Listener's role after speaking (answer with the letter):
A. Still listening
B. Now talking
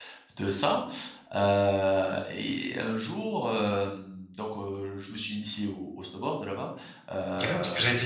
B